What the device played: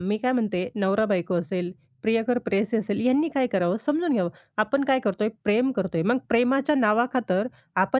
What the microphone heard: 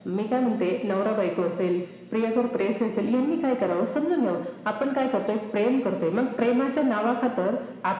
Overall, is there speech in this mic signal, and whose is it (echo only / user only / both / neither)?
echo only